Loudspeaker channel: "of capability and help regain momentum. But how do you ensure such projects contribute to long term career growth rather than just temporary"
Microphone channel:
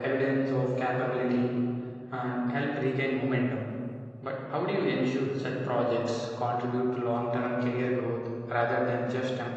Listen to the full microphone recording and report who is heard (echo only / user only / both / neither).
echo only